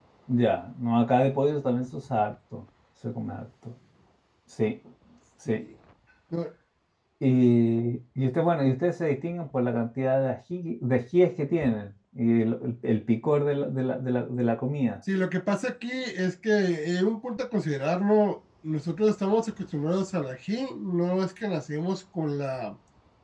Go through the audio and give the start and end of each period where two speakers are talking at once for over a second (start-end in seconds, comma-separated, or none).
none